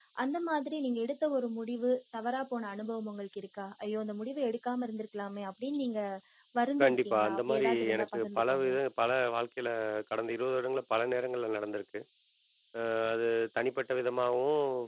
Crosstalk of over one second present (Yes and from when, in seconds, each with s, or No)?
Yes, from 6.8 s